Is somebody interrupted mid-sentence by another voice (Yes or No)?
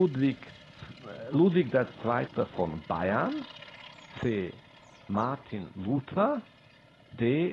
No